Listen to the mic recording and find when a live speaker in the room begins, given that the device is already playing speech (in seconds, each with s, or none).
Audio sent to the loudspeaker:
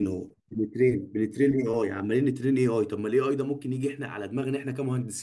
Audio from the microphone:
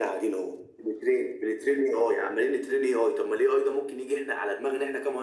none